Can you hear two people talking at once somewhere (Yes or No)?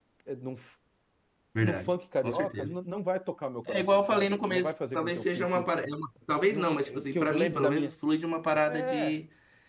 Yes